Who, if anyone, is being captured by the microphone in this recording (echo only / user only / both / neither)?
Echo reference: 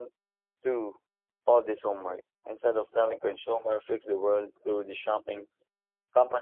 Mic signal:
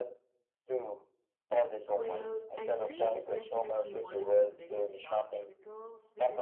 both